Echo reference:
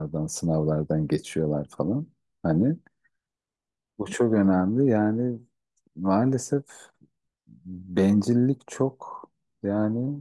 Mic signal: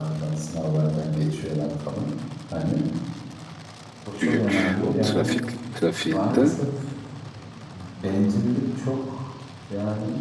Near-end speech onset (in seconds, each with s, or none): 4.2 s